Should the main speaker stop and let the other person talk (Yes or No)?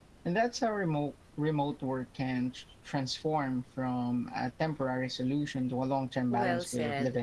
Yes